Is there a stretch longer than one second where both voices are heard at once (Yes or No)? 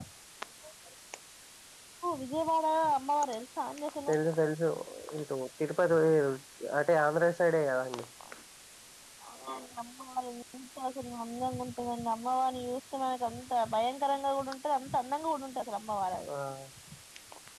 No